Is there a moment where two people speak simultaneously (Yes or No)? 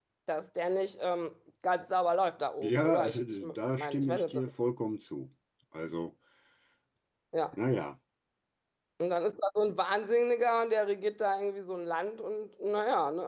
Yes